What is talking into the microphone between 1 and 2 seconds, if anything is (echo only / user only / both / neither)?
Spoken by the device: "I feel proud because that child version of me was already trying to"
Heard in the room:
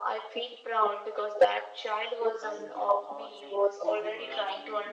echo only